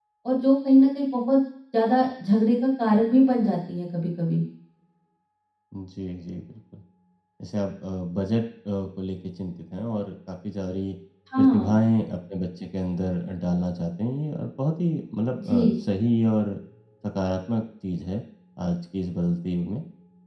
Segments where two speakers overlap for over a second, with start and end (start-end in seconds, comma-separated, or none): none